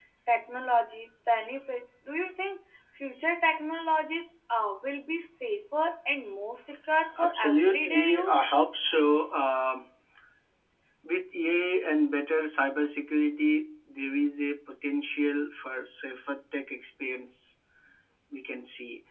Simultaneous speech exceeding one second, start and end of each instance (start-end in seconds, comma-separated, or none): 7.2-8.4